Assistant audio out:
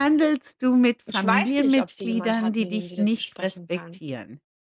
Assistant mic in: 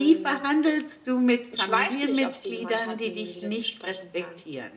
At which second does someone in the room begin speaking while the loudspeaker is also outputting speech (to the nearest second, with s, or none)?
none